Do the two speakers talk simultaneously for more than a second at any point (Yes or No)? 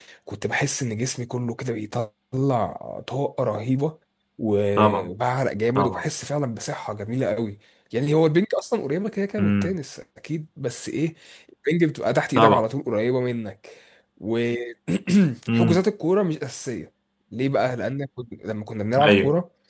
No